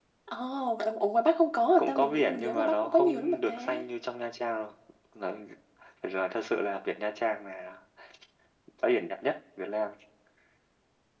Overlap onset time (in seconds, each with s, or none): 1.8 s